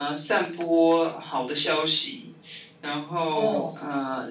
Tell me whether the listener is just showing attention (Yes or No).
Yes